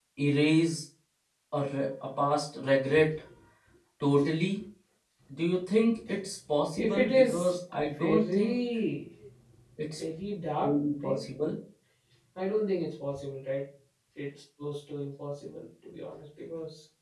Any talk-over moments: Yes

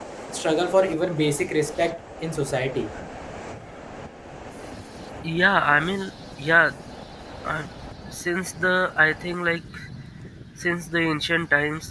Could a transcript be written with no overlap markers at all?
Yes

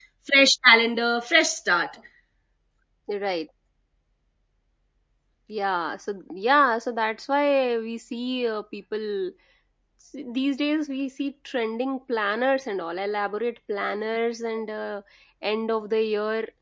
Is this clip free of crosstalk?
Yes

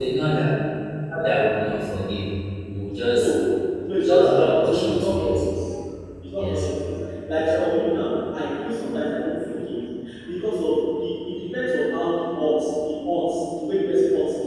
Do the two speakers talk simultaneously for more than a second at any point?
Yes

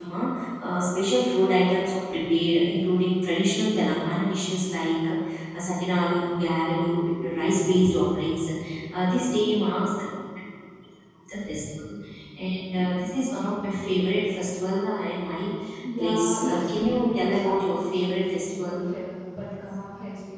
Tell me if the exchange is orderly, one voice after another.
No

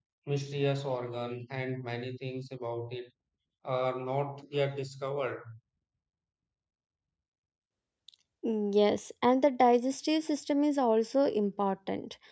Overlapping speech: No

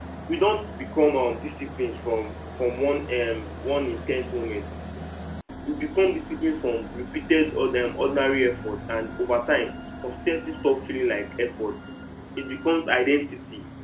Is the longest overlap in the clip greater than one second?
No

